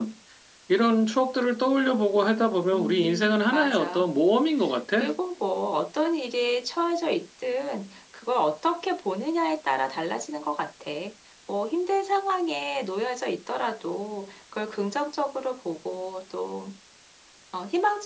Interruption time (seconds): 2.7 s

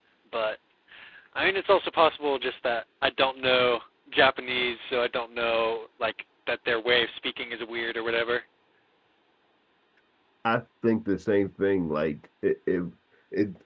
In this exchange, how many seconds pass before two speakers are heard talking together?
none

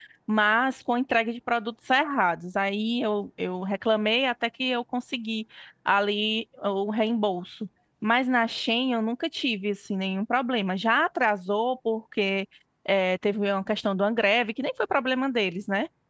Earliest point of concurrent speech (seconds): none

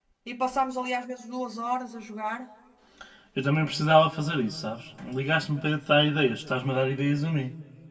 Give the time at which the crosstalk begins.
none

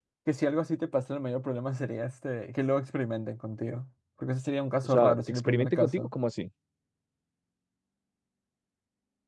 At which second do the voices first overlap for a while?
4.8 s

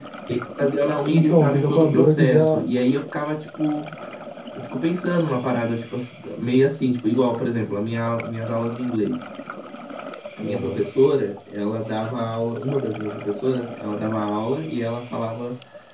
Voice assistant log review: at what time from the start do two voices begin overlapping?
1.1 s

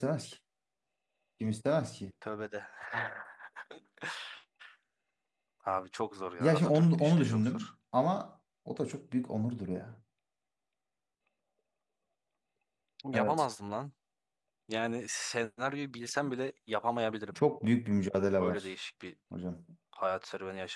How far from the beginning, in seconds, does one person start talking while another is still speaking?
6.4 s

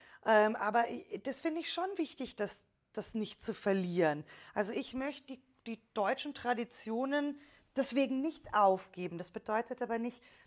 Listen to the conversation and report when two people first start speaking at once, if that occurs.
none

